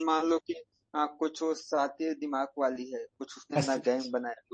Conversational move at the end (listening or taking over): listening